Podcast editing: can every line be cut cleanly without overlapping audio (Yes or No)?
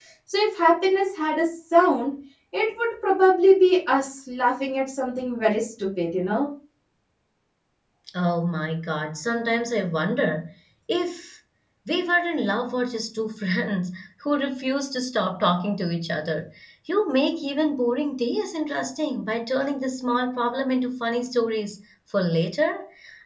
Yes